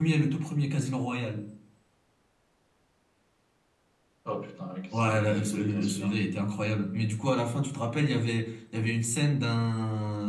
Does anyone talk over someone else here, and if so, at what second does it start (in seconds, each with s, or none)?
4.9 s